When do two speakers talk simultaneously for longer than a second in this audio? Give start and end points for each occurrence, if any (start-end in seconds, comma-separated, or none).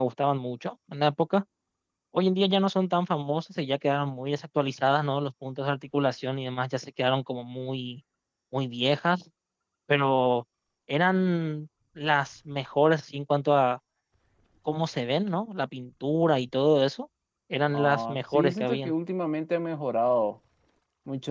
17.7-18.9